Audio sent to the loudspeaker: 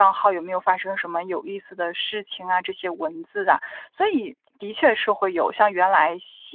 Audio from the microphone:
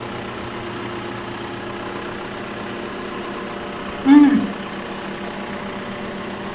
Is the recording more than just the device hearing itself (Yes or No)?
Yes